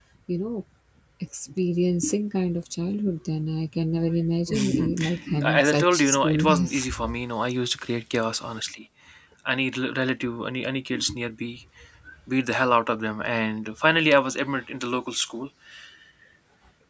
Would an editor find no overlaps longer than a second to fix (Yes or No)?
No